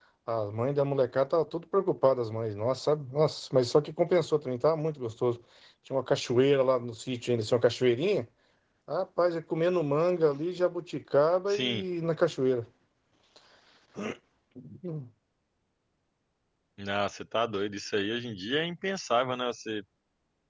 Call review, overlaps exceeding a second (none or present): none